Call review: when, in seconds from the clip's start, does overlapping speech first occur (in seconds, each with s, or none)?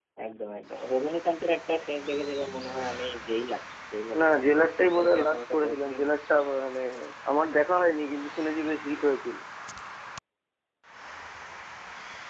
4.1 s